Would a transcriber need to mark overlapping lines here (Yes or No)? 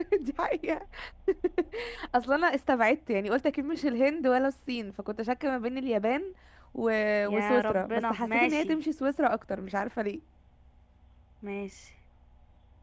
Yes